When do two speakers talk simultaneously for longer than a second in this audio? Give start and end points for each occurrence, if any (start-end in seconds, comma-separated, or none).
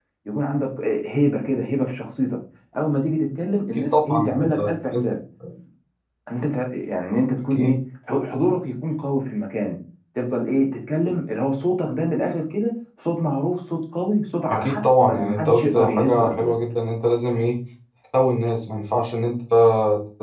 3.8-5.0, 14.5-16.6